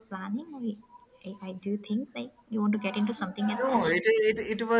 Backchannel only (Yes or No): No